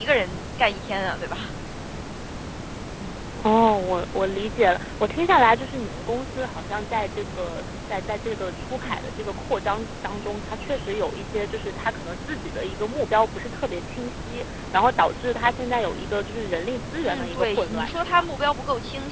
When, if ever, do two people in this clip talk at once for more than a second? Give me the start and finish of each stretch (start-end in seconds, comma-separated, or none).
17.0-18.2